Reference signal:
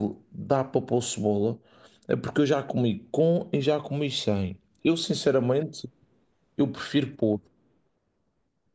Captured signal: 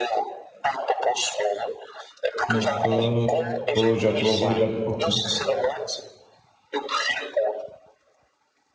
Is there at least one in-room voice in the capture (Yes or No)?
Yes